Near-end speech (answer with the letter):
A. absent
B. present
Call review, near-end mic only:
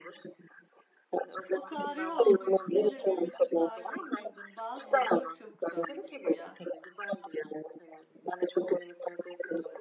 B